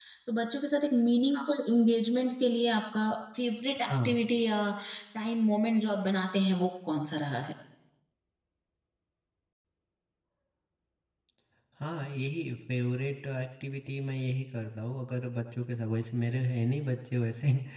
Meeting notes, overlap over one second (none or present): none